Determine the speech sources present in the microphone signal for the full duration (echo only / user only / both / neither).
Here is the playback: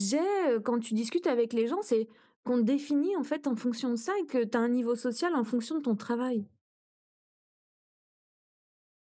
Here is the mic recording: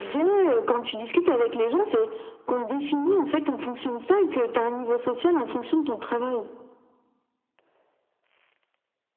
echo only